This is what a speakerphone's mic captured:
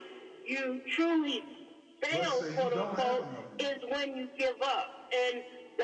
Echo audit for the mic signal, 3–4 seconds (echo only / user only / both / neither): both